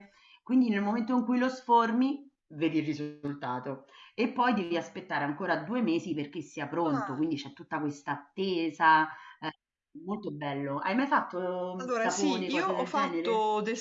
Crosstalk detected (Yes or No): Yes